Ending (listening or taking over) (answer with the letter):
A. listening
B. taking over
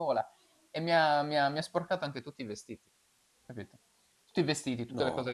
A